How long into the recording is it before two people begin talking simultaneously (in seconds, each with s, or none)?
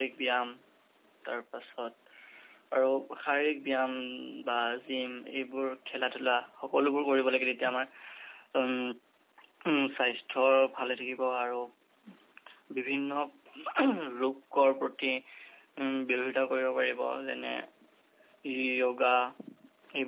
none